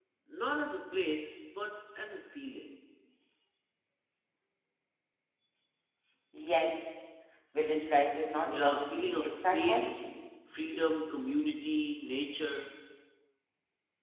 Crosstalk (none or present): present